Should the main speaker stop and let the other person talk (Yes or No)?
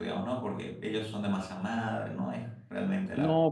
Yes